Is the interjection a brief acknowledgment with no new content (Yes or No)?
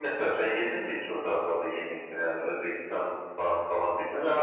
No